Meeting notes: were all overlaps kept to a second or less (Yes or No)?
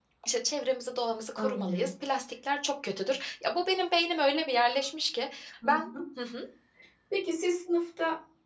Yes